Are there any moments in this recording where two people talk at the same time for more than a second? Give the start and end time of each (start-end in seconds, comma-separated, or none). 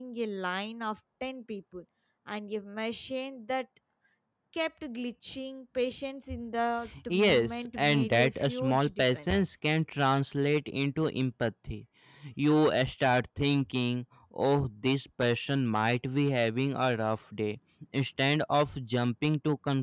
7.1-9.6